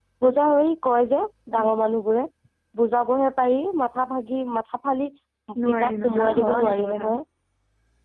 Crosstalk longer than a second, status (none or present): present